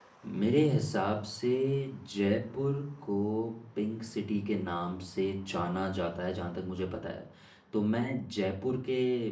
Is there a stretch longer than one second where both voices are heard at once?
No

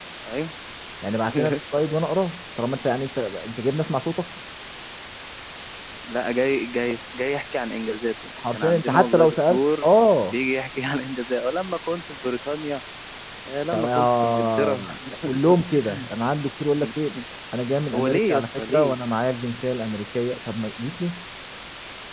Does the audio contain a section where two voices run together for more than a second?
Yes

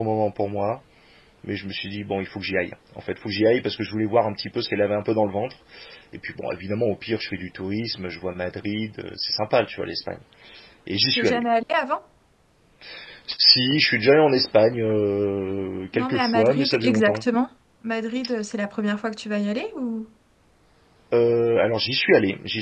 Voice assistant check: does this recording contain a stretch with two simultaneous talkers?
Yes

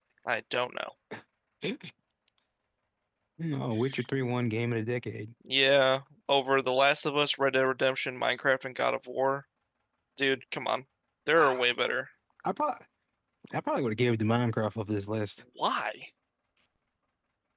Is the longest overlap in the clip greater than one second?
No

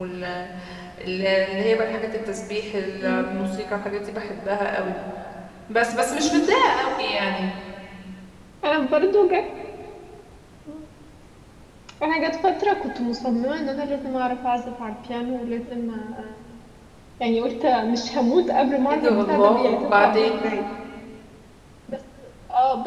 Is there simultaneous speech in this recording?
Yes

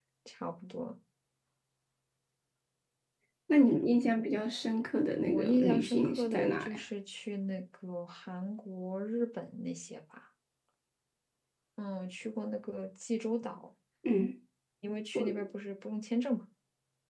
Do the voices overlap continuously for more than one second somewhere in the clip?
Yes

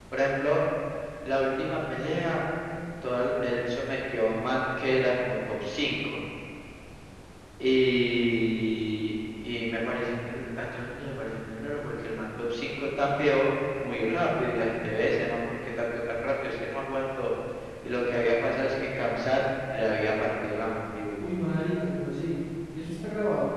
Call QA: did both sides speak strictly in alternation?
Yes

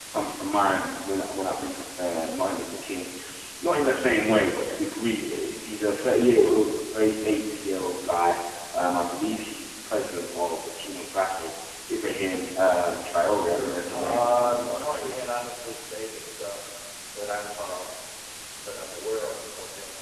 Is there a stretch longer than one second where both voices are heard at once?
Yes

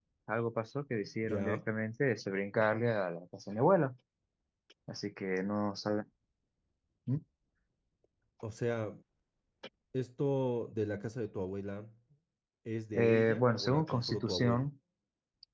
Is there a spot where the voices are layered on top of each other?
Yes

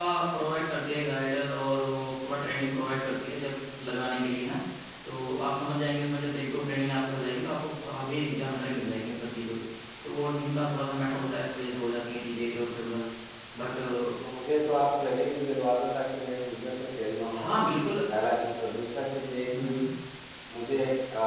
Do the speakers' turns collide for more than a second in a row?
No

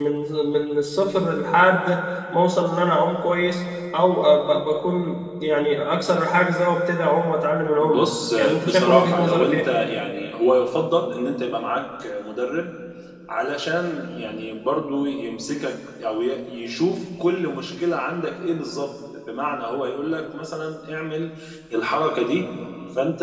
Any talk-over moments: Yes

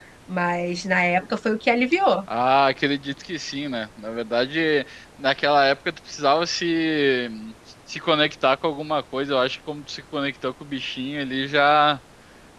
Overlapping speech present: No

